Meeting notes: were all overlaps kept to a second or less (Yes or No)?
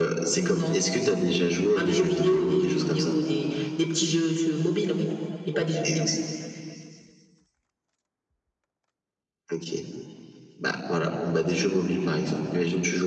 No